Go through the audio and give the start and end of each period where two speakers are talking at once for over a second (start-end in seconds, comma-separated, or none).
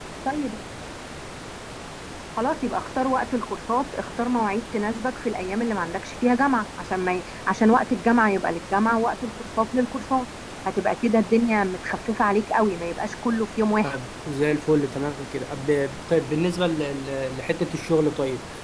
none